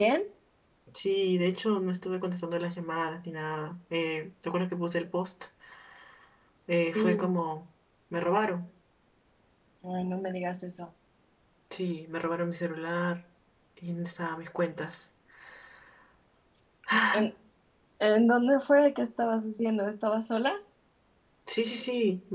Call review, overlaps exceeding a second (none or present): none